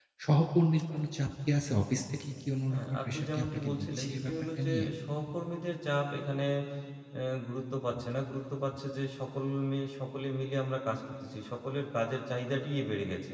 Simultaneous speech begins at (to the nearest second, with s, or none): 3 s